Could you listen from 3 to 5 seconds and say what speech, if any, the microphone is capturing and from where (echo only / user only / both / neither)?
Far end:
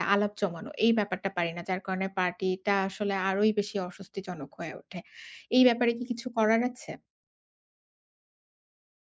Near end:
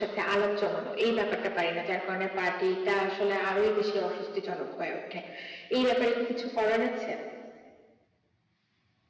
echo only